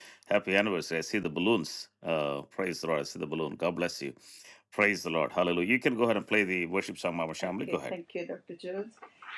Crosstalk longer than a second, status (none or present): none